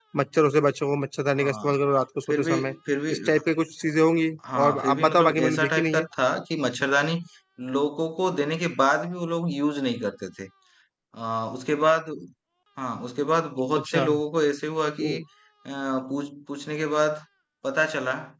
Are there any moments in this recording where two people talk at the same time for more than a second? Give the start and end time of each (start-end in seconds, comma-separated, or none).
4.6-6.0